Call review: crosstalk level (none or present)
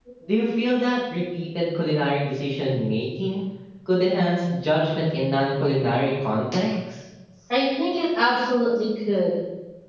none